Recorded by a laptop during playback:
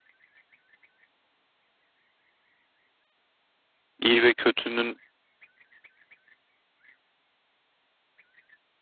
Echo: none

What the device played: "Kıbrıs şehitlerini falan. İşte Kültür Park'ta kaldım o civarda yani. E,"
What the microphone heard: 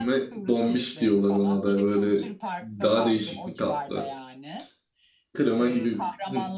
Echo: present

